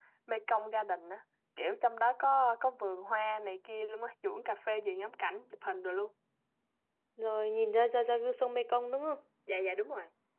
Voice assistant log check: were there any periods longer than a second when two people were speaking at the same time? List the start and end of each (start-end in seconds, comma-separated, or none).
none